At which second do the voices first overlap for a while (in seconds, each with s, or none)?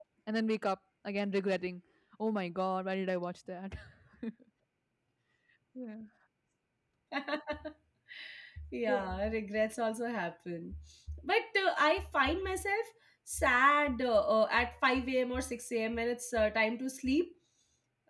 none